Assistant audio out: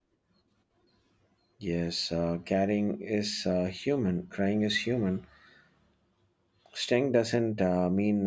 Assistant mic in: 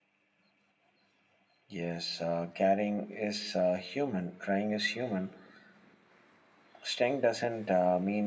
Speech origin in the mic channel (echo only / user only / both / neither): echo only